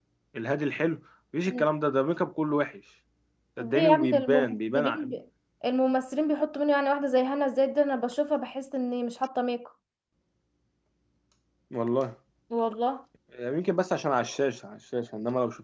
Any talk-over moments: Yes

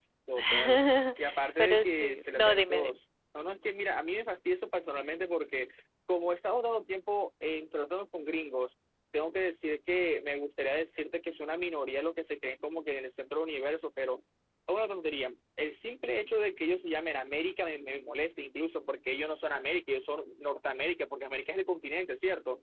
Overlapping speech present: Yes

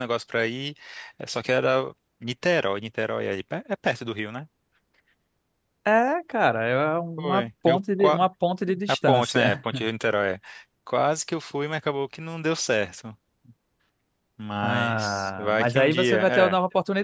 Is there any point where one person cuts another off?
Yes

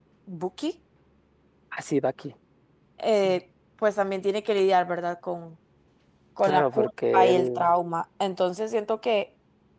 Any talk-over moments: Yes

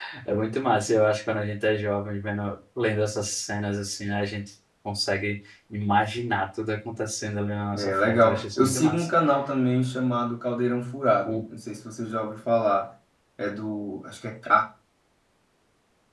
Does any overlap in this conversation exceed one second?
Yes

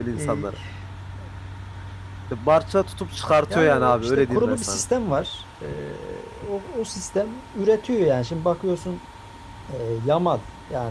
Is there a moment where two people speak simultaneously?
Yes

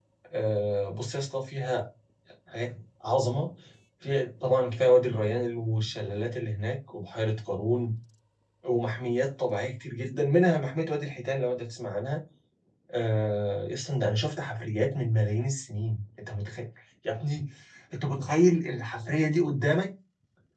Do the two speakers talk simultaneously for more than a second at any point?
No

